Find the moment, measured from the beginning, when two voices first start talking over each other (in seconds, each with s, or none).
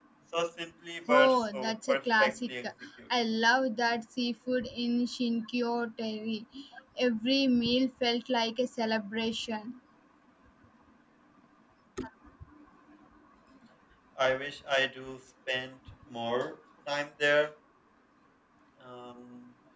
1.1 s